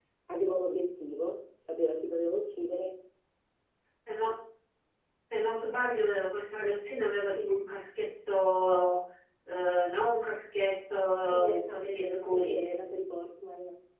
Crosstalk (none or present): present